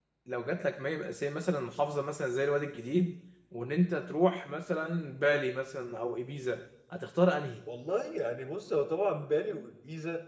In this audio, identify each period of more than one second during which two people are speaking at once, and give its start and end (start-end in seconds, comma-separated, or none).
none